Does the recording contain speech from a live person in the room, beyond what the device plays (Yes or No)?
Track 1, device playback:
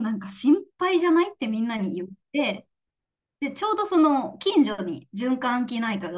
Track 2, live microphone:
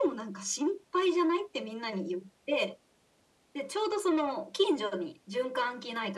No